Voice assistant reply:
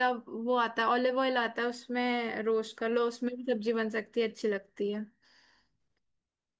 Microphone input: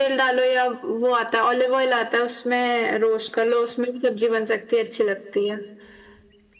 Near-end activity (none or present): none